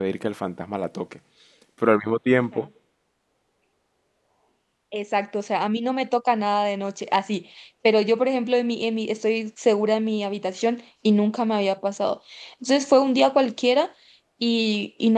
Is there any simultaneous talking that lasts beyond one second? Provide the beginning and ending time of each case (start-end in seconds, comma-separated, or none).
none